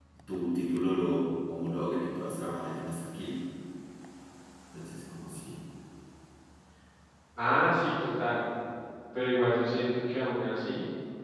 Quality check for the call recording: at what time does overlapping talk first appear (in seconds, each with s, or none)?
none